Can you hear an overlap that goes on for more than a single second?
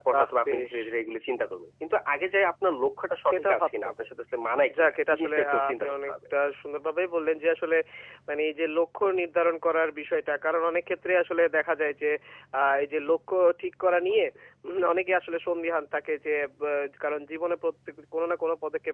Yes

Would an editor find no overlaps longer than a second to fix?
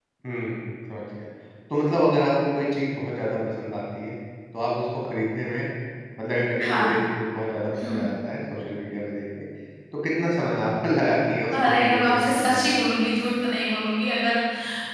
No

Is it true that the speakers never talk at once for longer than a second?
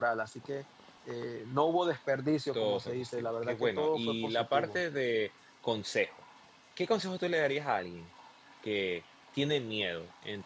No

